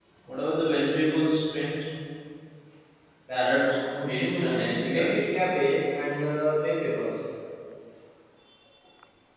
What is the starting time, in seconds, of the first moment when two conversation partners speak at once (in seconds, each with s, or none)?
3.5 s